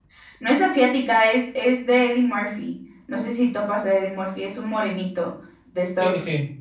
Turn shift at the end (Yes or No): Yes